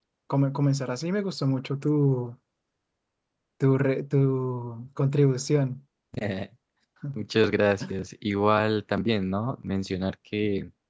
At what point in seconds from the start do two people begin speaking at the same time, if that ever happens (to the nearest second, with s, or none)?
none